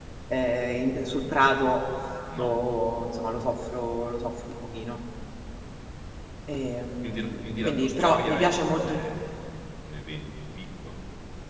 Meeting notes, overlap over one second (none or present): present